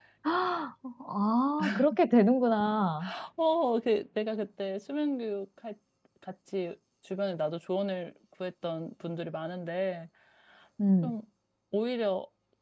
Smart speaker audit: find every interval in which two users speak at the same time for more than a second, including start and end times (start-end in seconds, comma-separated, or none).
none